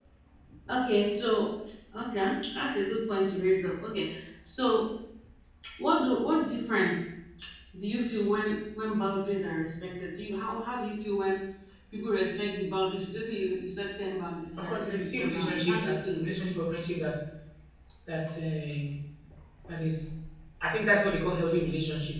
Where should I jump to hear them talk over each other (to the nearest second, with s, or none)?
15 s